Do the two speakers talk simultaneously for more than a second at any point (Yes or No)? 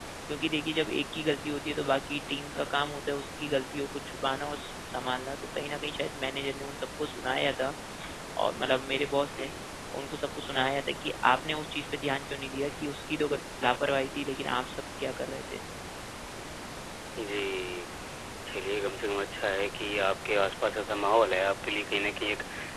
No